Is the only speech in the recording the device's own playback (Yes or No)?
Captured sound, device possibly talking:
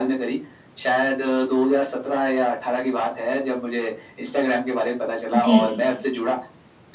No